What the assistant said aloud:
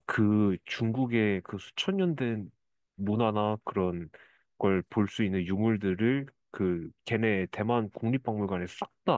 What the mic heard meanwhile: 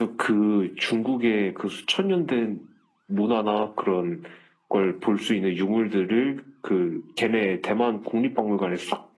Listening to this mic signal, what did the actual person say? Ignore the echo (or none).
none